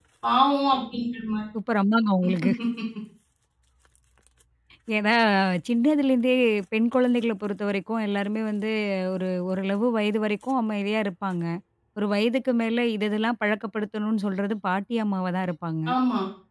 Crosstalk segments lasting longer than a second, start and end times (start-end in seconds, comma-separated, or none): none